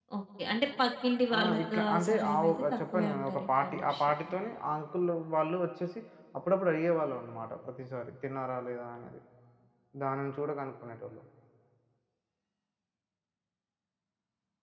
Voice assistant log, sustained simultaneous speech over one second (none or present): present